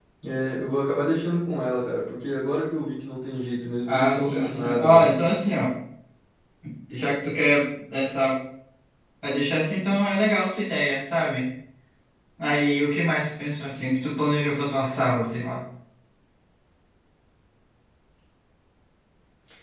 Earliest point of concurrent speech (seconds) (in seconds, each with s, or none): 3.9 s